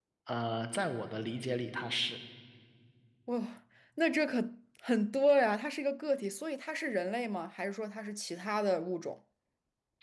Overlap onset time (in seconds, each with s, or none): none